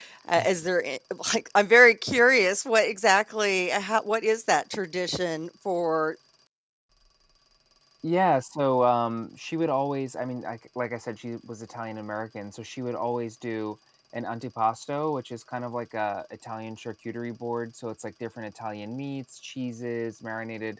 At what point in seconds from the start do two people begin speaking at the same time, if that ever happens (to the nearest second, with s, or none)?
none